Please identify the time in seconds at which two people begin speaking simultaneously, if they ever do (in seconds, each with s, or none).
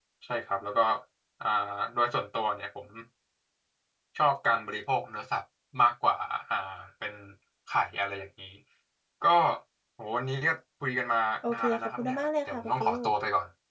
11.4 s